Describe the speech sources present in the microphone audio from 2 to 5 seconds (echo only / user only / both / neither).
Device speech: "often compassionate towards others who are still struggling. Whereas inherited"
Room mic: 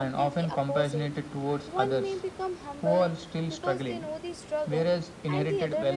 both